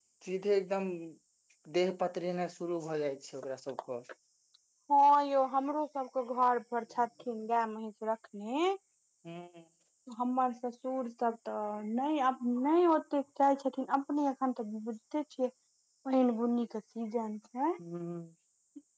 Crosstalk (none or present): none